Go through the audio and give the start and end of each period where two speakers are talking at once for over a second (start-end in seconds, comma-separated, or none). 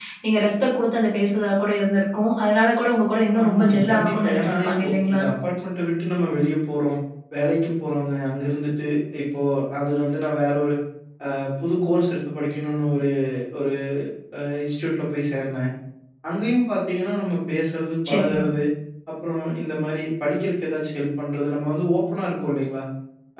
3.4-5.2